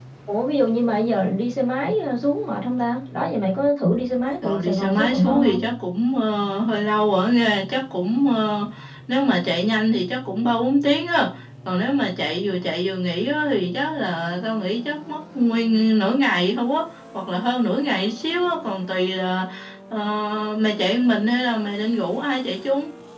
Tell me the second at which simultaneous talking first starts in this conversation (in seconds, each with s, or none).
4.4 s